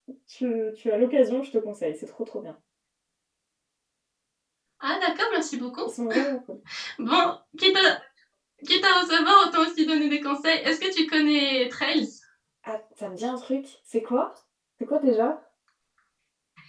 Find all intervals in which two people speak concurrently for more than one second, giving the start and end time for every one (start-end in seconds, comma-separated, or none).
none